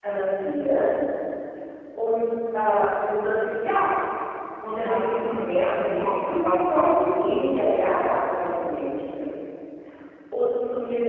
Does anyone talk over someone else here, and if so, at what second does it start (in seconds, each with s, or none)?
4.8 s